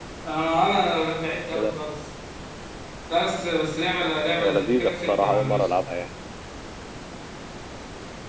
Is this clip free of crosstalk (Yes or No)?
No